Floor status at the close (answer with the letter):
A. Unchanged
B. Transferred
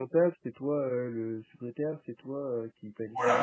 B